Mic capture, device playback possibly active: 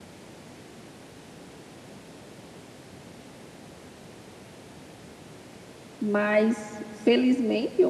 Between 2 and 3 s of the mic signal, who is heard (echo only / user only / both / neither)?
neither